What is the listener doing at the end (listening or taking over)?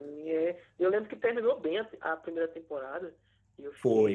listening